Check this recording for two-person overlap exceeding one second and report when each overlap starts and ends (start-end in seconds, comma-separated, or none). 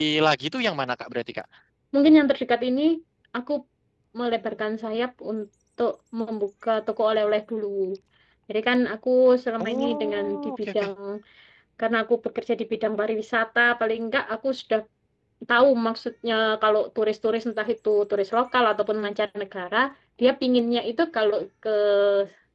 9.6-10.9